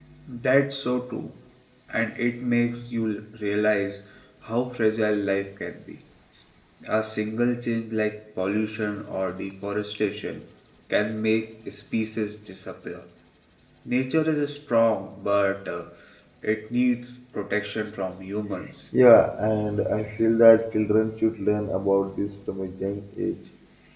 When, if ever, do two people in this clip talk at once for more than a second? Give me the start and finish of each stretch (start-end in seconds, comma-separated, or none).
none